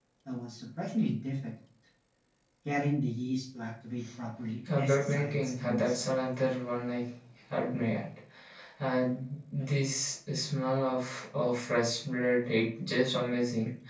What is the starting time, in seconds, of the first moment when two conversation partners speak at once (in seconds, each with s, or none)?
4.7 s